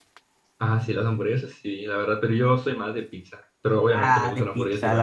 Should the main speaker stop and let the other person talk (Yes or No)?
Yes